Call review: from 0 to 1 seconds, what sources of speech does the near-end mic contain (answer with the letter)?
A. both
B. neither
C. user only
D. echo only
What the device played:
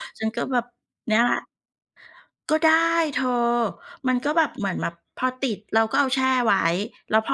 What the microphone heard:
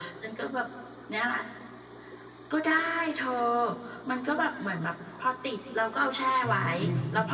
D